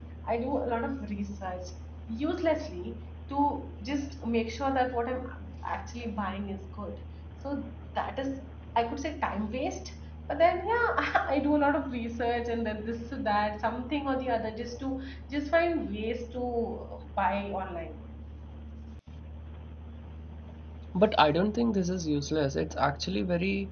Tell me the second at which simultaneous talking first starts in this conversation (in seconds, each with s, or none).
none